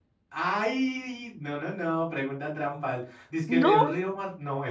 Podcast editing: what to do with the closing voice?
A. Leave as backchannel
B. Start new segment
A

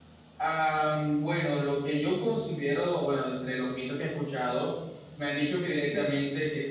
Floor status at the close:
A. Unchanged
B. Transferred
A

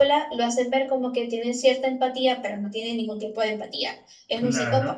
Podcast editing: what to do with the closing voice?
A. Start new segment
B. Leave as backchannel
A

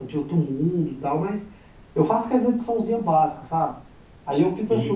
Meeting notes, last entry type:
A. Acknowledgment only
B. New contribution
A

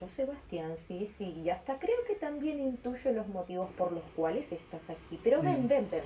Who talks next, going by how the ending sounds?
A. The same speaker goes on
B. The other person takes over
A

